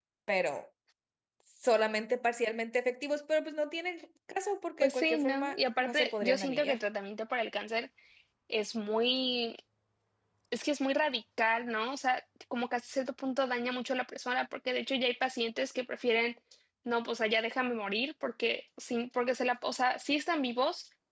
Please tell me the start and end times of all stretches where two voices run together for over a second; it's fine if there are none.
4.8-6.8

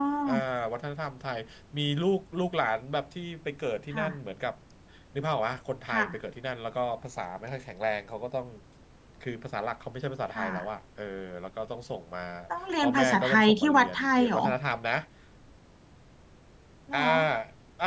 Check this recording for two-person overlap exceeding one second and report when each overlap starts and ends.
12.8-14.4

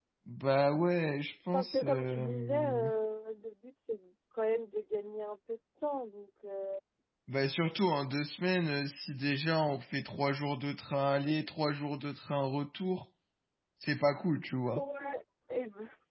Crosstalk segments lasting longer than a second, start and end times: 1.5-2.9

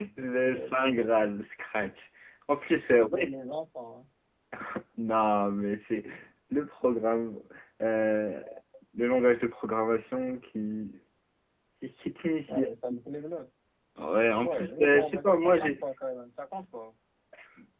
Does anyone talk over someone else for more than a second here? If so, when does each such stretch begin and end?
14.4-15.8

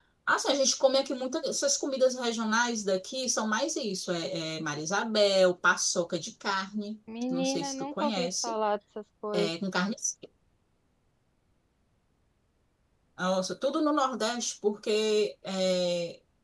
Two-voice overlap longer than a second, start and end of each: 7.3-8.5

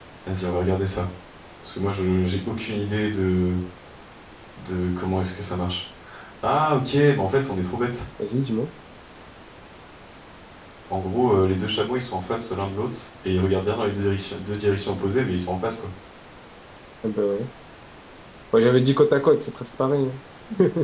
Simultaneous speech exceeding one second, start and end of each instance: none

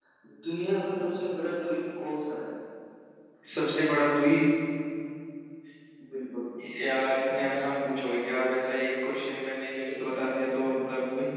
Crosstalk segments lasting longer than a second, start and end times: none

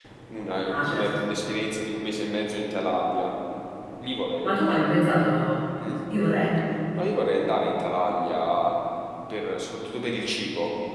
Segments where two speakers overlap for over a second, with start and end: none

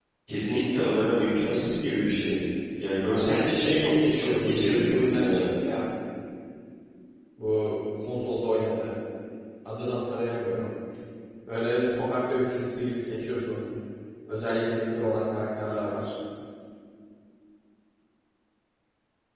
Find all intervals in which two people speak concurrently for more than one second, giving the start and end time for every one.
3.1-5.5

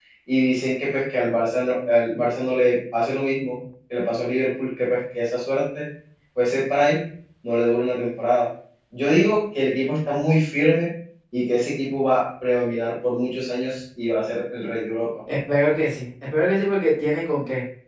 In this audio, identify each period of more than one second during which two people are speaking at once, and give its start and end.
none

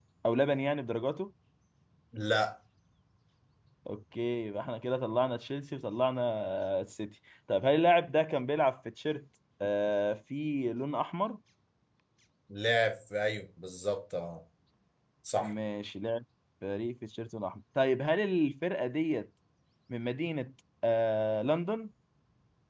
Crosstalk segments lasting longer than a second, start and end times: none

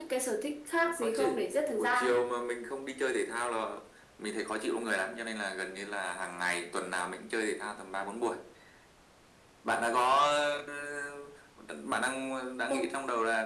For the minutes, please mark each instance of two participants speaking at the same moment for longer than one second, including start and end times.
0.8-2.2

